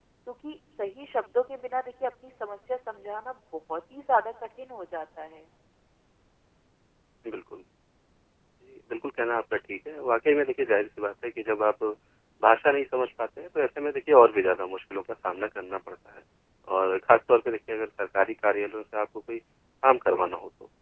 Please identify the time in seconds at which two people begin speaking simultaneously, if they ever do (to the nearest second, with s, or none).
none